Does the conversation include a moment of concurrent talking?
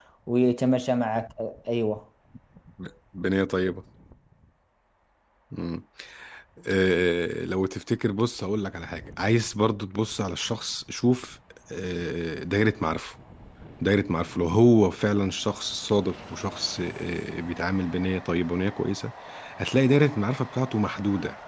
No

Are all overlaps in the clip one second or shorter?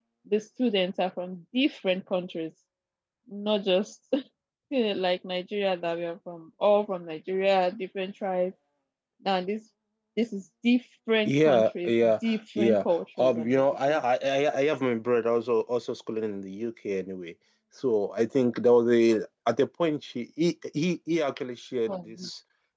No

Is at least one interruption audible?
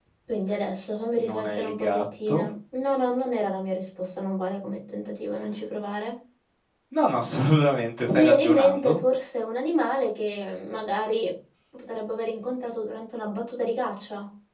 Yes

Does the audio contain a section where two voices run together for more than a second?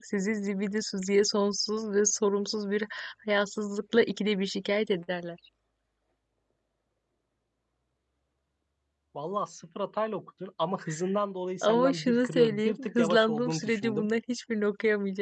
Yes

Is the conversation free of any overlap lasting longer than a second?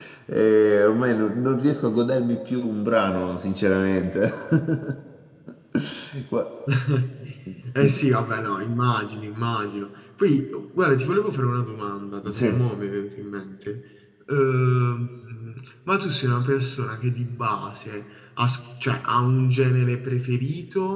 Yes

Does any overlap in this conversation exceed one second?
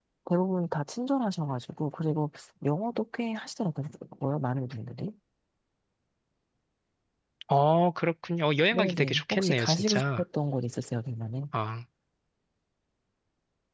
Yes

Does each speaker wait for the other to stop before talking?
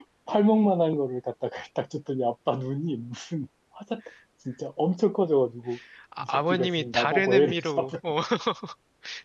No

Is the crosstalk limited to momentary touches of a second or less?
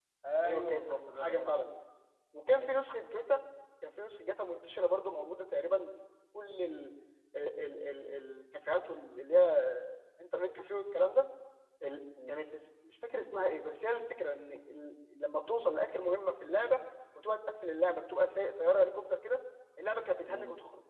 No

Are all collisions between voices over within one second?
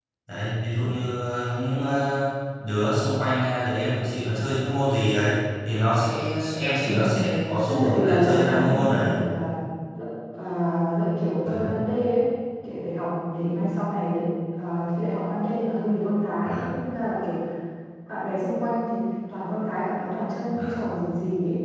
No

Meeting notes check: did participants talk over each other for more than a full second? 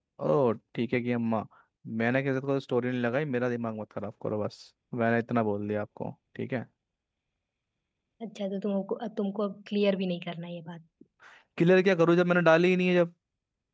No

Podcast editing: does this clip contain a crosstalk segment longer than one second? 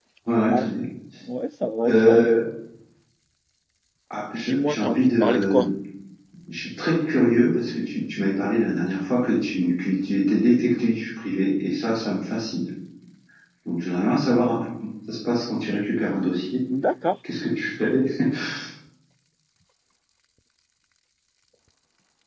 Yes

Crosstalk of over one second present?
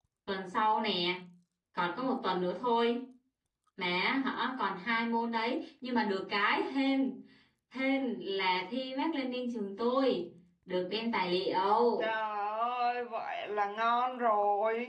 No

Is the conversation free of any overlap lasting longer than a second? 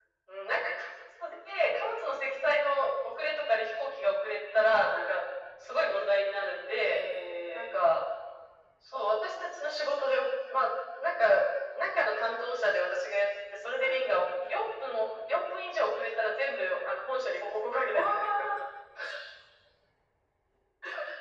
Yes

